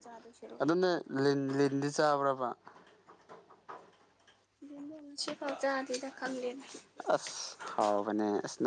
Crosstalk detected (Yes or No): No